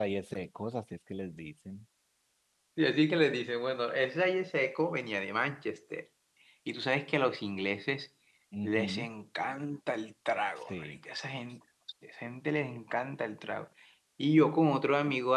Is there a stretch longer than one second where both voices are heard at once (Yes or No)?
No